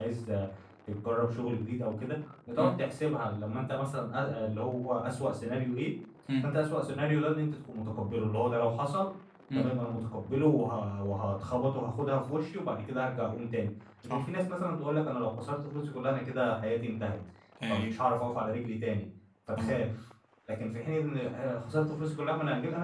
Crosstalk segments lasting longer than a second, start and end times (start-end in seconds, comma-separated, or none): none